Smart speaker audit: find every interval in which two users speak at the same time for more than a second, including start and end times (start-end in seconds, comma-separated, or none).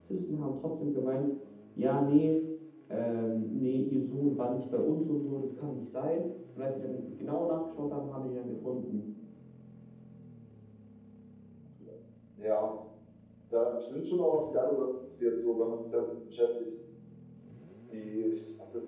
none